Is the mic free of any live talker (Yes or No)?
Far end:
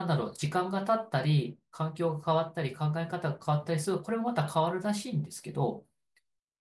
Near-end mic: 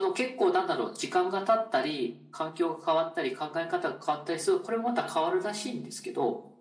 Yes